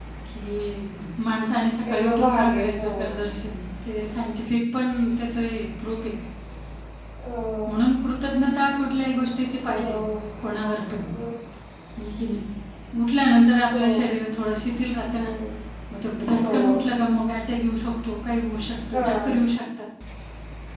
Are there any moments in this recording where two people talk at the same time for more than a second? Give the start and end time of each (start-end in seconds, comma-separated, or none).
1.9-3.1